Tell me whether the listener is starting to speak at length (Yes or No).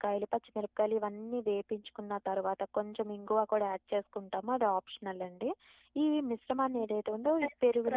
Yes